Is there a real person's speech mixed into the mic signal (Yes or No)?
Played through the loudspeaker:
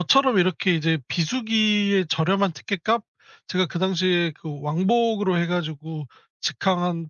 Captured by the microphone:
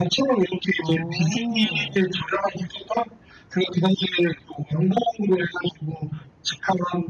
Yes